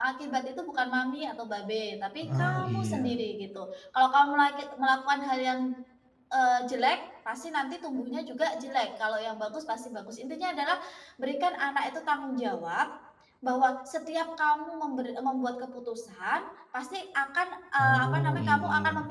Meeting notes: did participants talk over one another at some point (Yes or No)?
Yes